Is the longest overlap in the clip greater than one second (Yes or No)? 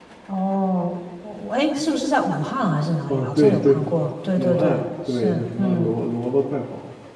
Yes